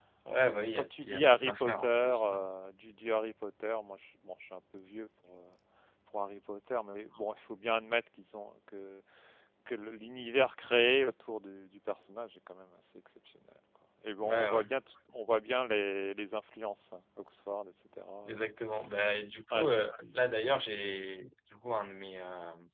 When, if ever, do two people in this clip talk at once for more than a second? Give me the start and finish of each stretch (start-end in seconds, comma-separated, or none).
0.8-2.4